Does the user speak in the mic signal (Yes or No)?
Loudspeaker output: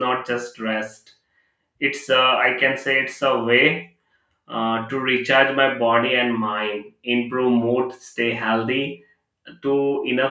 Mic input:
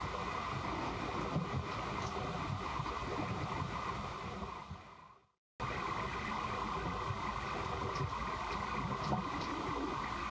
No